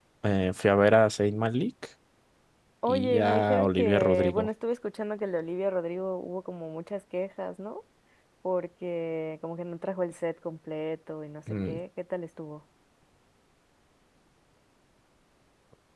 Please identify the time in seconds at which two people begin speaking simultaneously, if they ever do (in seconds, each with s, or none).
2.9 s